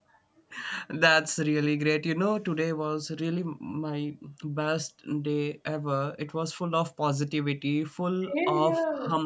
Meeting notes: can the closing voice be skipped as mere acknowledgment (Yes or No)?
Yes